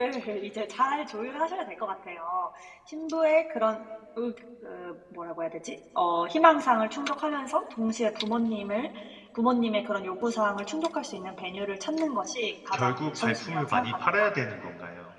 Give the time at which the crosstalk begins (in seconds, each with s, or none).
12.7 s